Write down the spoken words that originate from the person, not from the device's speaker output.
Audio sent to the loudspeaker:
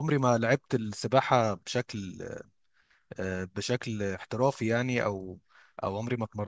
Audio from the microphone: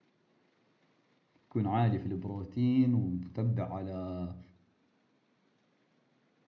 تكون عالي في البروتين ومتبع على

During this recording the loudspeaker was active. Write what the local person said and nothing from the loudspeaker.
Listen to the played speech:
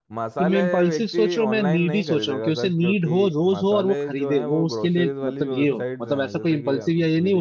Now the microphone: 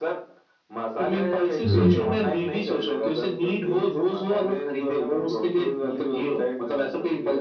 हम्म

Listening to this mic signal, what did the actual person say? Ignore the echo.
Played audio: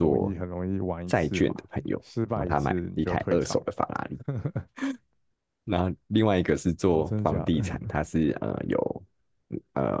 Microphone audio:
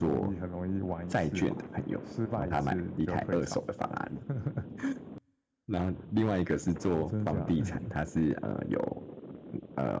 none

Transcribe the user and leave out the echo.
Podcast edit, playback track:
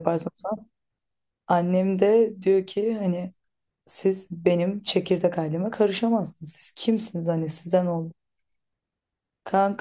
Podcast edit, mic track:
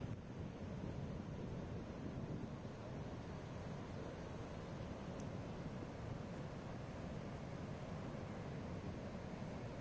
none

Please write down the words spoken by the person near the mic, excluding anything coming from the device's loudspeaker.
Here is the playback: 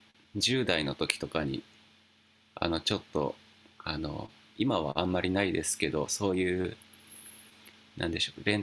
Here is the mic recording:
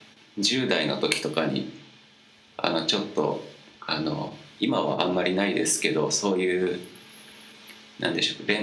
none

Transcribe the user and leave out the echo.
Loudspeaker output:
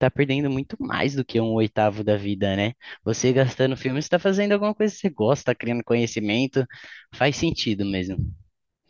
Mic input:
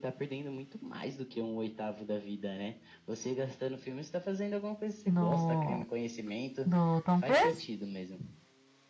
no do Tom Cruise?

